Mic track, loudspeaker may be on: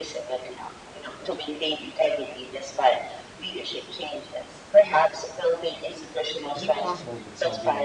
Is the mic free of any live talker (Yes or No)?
No